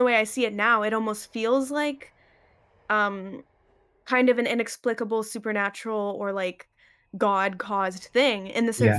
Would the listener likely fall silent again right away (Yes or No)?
Yes